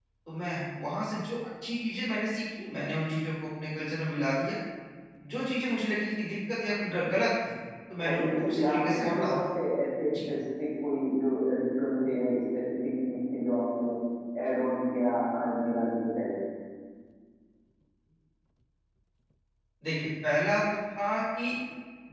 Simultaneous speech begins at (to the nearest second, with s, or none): 8 s